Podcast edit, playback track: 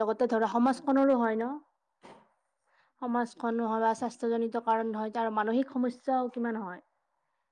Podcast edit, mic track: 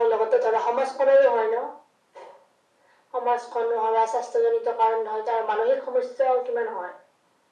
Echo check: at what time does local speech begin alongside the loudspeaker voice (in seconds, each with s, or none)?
none